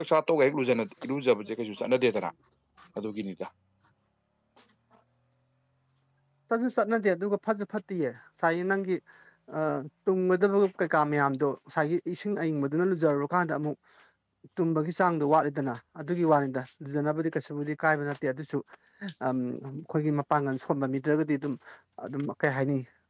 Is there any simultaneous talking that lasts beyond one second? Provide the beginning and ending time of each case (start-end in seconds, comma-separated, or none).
none